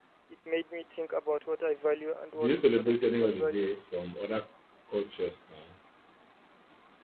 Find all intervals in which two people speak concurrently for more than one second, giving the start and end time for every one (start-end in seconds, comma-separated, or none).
2.4-3.7